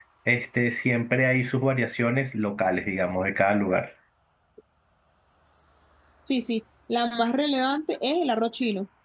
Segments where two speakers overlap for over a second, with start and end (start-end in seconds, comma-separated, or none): none